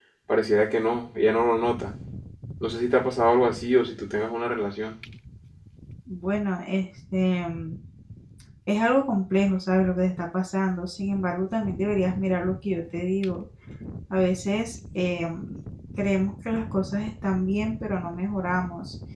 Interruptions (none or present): none